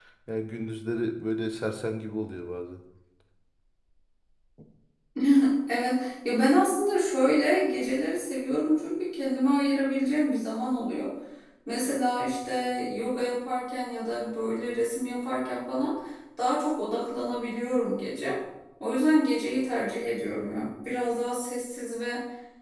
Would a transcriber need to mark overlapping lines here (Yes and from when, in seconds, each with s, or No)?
No